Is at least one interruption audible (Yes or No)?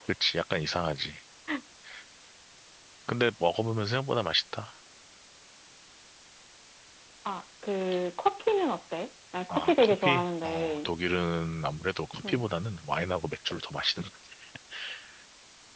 Yes